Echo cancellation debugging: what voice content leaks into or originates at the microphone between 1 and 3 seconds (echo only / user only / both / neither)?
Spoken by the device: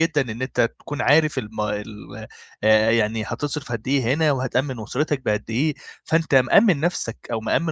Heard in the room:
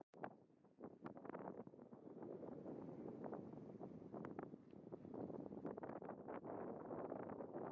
neither